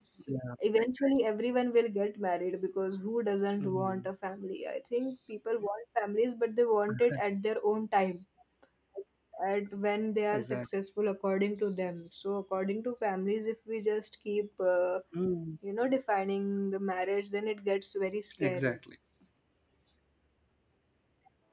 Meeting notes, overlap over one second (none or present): none